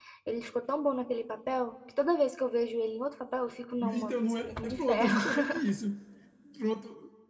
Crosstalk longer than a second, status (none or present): present